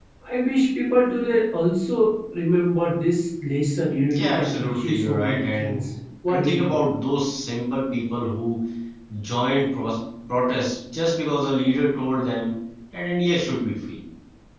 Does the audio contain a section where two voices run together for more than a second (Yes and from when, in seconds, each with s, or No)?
Yes, from 4.1 s